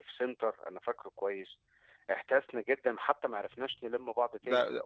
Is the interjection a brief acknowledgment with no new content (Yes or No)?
No